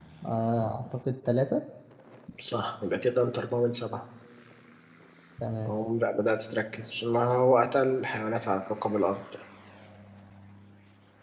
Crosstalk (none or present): none